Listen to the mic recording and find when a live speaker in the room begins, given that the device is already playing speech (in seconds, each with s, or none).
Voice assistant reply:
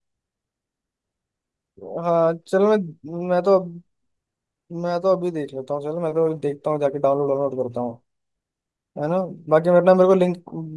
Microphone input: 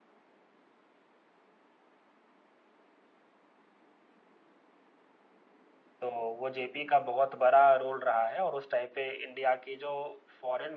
6.0 s